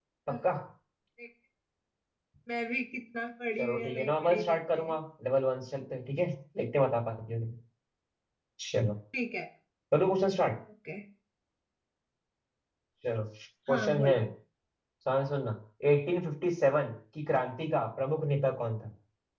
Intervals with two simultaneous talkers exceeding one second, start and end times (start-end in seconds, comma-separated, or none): 3.6-5.0